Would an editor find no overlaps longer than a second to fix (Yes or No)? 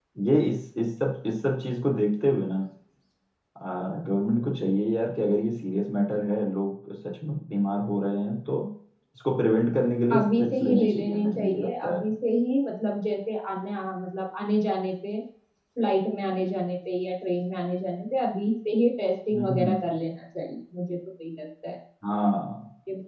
No